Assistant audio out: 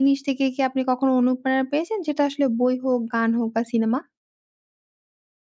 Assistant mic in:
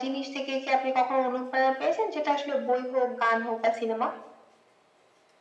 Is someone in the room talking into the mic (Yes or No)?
No